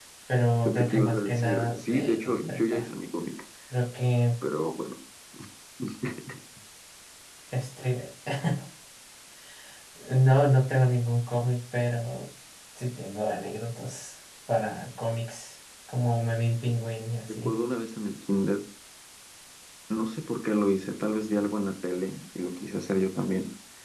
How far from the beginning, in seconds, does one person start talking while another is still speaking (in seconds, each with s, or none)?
0.7 s